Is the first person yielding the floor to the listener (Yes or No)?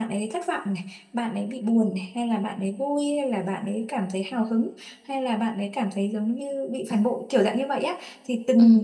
No